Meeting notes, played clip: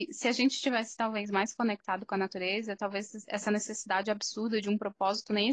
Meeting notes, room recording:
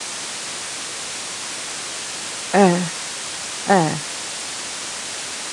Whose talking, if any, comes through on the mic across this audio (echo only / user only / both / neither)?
user only